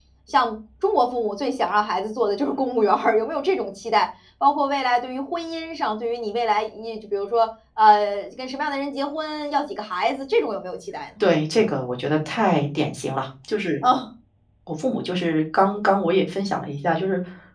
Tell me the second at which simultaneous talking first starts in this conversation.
none

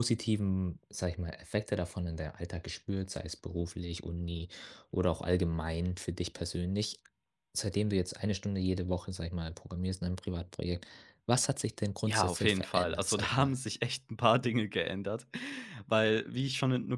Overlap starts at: 12.1 s

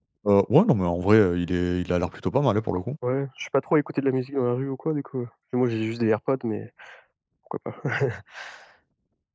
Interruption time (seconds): none

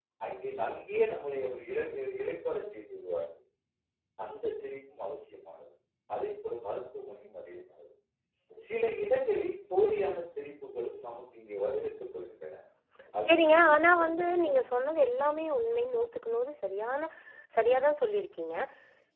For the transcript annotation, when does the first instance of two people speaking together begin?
13.3 s

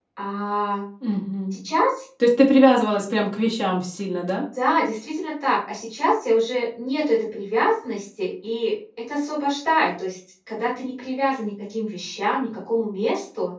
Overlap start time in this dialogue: none

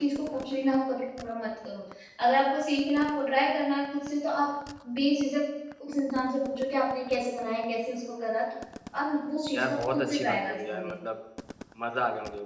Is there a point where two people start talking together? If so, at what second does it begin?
9.5 s

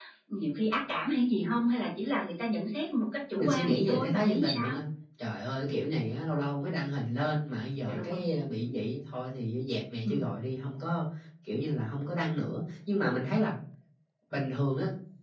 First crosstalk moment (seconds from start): 3.3 s

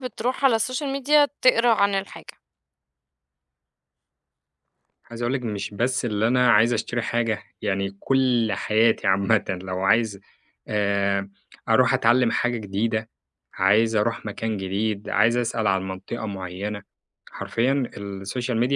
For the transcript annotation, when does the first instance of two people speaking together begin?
none

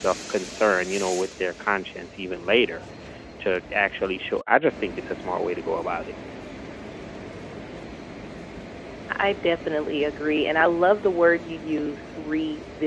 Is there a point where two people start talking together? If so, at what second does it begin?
none

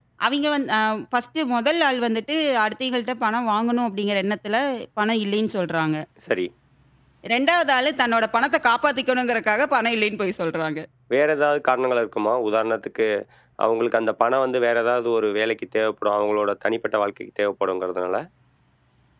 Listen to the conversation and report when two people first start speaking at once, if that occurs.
none

